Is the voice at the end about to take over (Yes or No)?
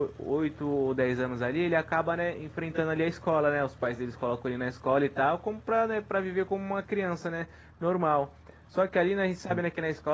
No